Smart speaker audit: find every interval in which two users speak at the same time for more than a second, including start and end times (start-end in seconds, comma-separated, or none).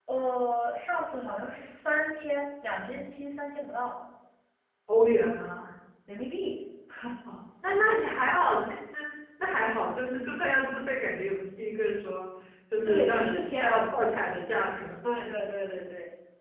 12.8-14.4